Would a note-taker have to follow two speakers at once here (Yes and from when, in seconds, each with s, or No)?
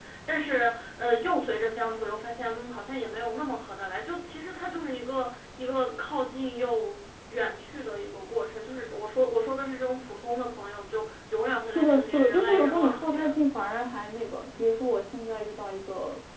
Yes, from 11.6 s